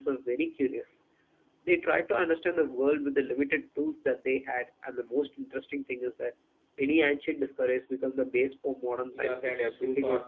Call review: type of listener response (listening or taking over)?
taking over